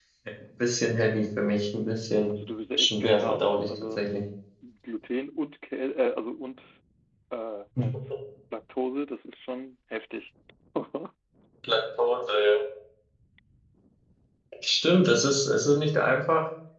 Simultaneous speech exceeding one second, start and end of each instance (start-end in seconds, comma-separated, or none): 2.8-4.1